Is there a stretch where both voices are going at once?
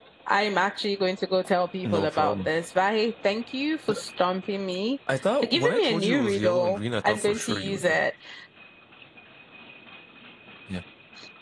Yes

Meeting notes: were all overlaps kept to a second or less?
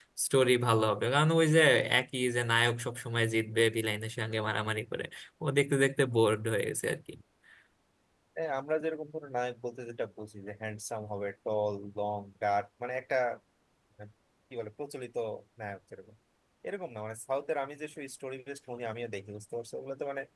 Yes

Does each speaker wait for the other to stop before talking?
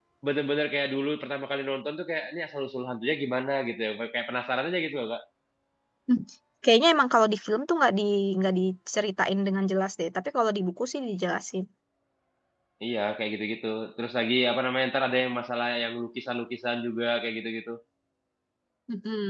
Yes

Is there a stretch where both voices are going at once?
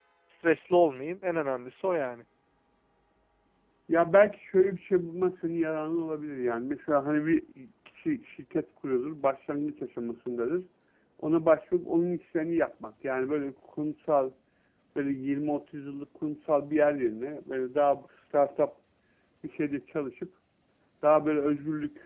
No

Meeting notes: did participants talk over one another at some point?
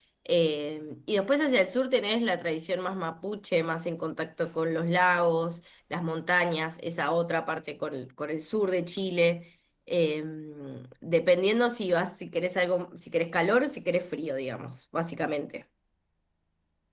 No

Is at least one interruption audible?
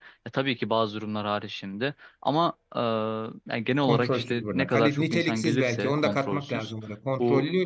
Yes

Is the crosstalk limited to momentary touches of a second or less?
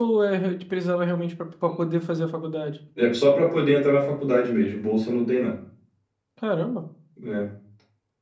Yes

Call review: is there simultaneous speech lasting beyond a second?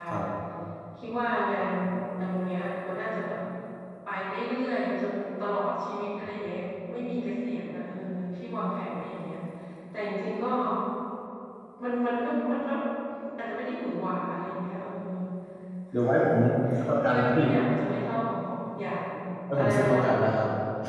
No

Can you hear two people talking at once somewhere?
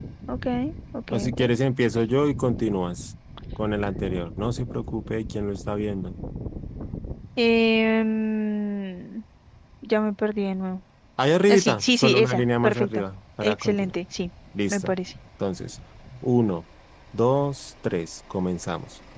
Yes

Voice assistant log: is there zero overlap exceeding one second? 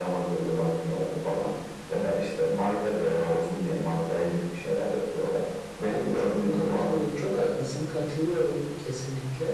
No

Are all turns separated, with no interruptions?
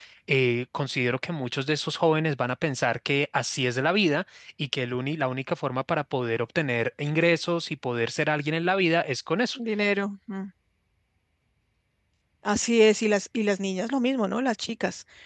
Yes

